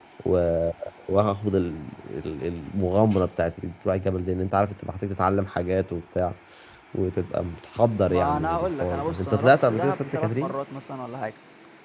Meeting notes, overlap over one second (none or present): present